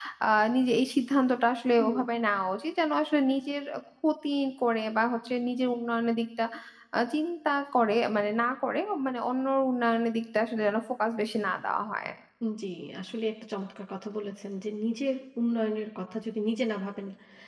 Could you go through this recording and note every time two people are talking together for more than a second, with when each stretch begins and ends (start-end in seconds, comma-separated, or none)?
none